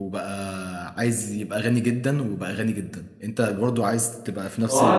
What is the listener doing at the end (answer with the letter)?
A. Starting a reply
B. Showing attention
A